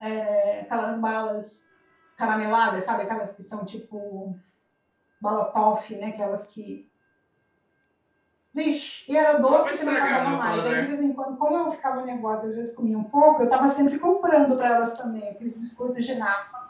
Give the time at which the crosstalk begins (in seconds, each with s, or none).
9.4 s